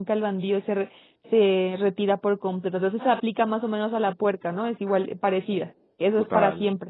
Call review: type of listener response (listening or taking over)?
taking over